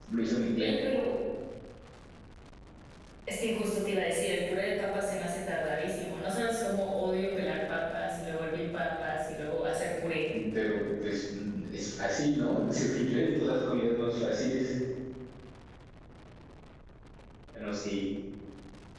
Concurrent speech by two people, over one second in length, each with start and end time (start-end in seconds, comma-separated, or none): none